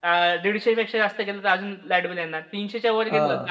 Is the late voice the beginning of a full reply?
No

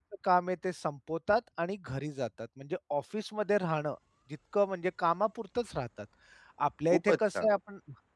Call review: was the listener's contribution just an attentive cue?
Yes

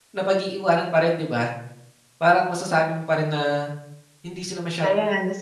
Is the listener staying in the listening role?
No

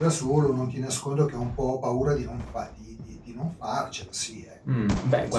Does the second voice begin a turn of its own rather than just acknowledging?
Yes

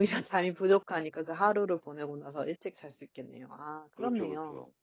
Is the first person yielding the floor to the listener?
Yes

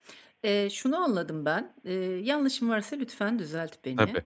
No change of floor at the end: Yes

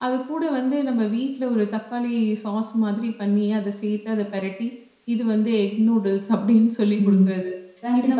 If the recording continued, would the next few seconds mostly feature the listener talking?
Yes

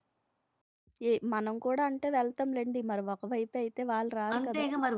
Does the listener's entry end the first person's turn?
Yes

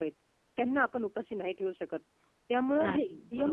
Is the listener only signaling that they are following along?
Yes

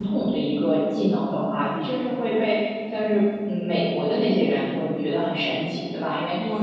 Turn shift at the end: No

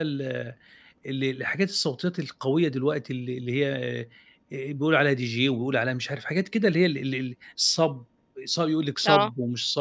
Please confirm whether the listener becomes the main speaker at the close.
No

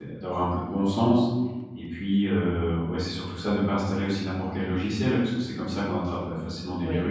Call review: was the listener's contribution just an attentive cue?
No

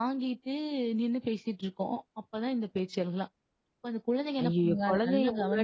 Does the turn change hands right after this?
Yes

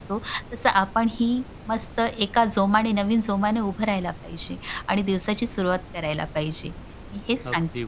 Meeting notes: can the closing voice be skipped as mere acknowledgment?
No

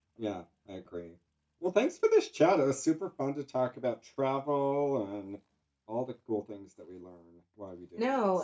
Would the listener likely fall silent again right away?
No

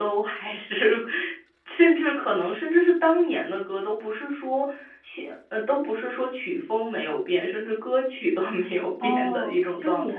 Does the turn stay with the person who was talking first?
No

